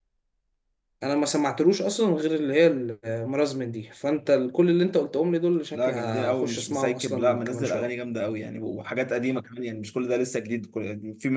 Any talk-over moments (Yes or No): Yes